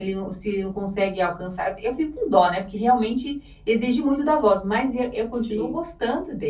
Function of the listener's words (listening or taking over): listening